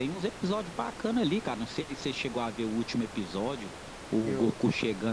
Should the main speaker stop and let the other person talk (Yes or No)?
No